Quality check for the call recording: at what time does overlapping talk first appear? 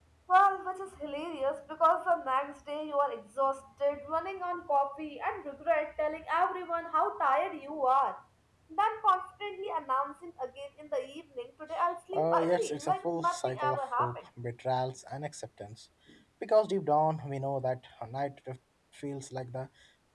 12.1 s

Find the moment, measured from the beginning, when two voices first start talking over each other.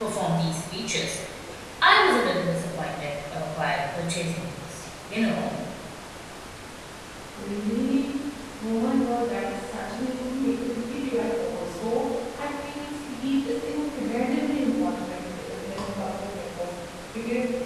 none

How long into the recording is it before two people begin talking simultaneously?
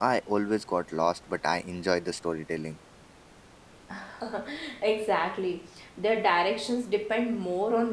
none

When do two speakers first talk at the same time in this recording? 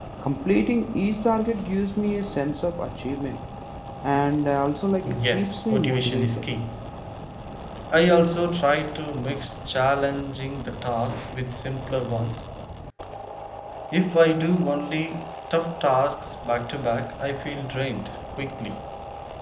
5.0 s

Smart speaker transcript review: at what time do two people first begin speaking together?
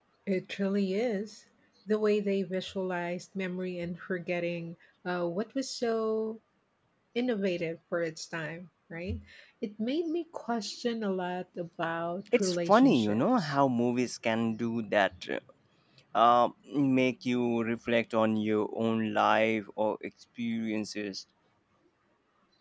12.3 s

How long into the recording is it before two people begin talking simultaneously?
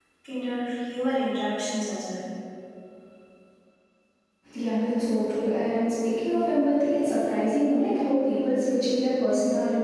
none

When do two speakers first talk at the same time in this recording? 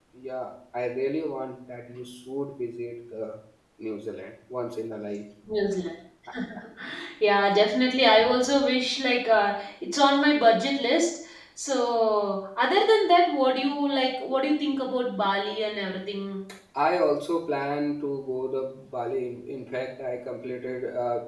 none

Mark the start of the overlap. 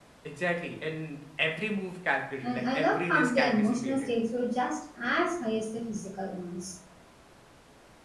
2.4 s

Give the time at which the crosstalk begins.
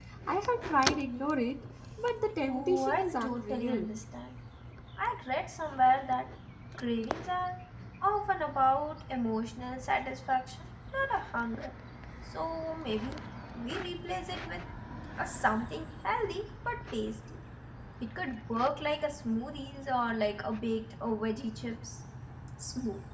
2.5 s

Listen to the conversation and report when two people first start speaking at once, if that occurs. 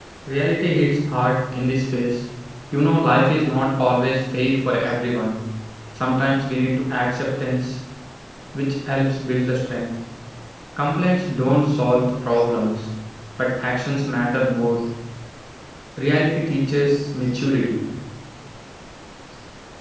none

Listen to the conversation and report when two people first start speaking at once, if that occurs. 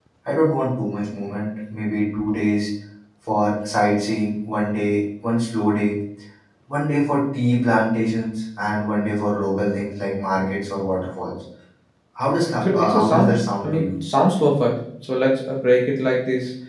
12.6 s

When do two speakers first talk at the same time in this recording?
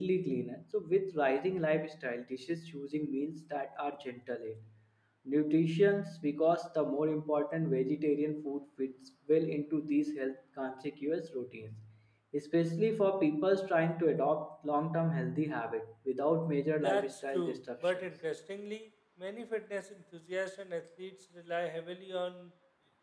16.8 s

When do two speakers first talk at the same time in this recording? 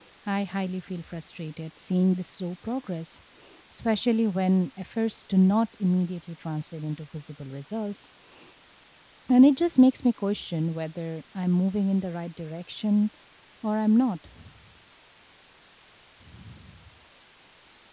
none

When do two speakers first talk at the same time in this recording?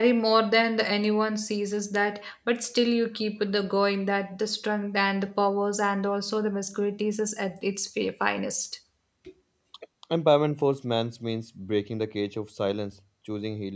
none

